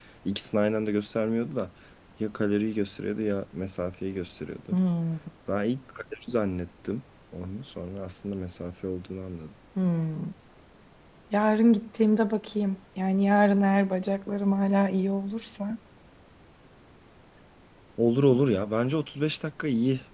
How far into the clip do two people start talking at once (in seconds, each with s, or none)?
none